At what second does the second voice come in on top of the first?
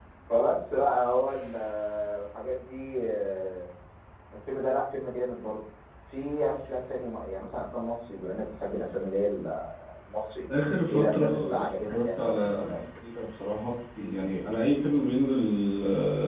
11 s

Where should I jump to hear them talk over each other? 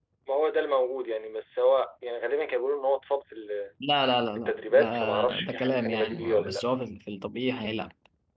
4 s

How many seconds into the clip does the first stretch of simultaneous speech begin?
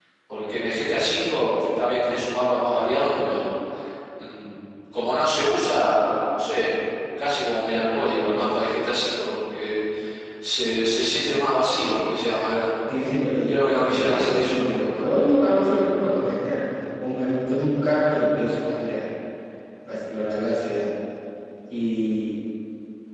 13 s

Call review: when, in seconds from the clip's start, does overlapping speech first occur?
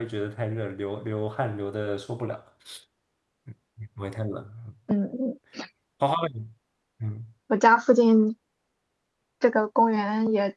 none

